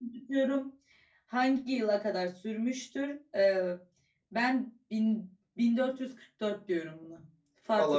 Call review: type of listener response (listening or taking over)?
taking over